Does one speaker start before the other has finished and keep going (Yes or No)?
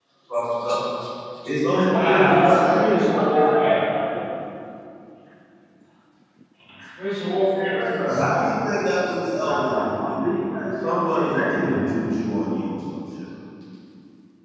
Yes